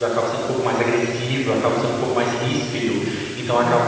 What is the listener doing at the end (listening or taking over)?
listening